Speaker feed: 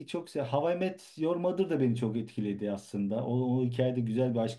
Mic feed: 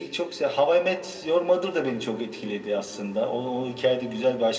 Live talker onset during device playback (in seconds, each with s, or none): none